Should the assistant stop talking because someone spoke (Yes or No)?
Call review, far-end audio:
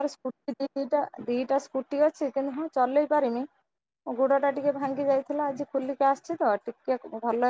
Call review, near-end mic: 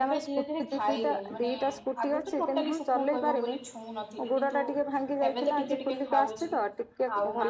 Yes